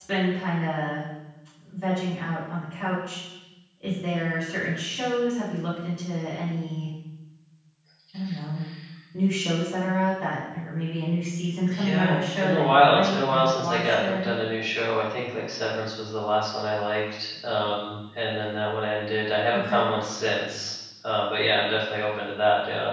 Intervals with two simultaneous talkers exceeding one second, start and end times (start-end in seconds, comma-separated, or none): 11.7-14.4